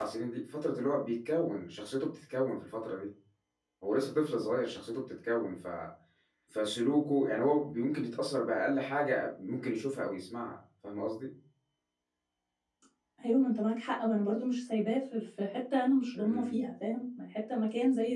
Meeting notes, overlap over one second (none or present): none